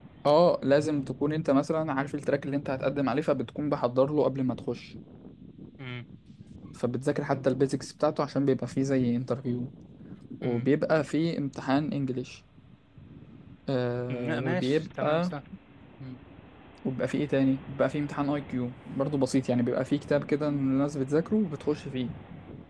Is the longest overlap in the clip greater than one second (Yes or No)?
Yes